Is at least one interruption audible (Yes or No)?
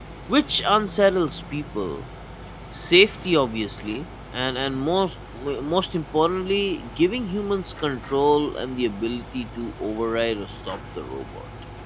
No